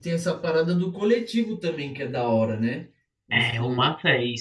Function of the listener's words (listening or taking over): taking over